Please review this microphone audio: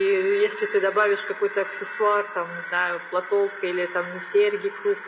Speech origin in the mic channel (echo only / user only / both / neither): echo only